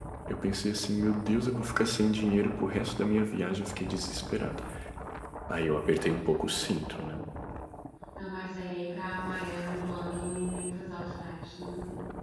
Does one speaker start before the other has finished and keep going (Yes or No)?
No